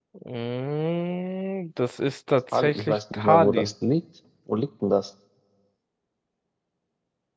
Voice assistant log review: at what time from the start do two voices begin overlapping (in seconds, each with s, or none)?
2.5 s